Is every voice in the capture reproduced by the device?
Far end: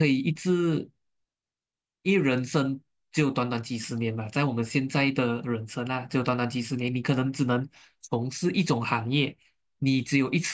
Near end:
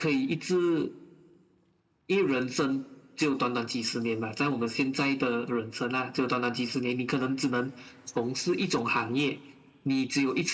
Yes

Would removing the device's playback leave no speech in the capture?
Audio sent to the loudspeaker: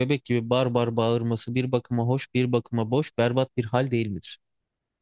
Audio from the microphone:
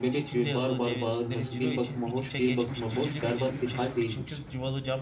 No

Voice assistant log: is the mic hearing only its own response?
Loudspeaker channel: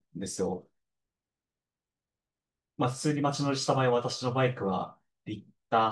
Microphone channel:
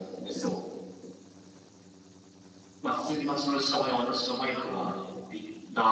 Yes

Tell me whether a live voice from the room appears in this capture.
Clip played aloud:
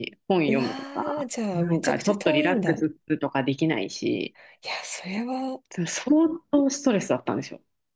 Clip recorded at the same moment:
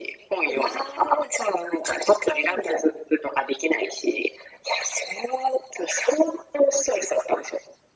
No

